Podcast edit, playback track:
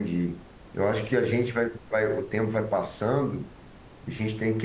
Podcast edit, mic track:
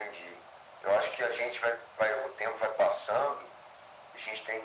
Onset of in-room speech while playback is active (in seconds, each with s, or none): none